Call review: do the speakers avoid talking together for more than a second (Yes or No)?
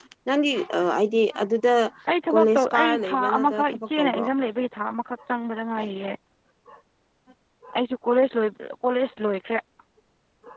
No